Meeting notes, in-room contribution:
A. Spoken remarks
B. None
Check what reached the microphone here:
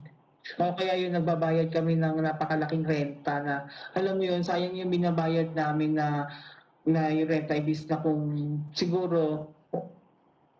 B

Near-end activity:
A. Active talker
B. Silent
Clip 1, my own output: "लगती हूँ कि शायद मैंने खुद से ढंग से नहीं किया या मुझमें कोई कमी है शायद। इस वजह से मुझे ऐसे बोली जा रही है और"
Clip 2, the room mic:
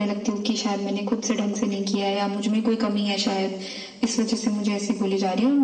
B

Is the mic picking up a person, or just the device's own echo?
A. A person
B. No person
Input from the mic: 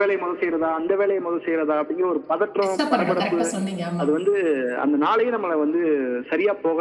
A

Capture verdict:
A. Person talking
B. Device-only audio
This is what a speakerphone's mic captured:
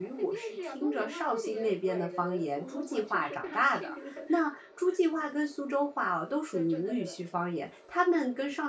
A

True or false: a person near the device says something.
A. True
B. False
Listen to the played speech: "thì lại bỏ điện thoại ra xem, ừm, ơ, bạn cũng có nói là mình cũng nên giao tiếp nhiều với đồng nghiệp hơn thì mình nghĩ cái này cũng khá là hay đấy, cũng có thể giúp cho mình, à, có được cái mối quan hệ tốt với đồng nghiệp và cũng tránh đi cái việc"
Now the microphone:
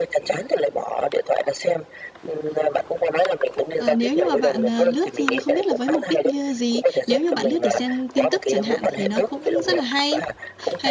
A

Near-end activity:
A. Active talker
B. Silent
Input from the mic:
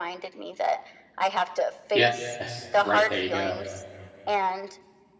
A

